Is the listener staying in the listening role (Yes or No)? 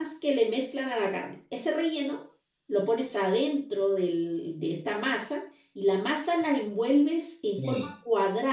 Yes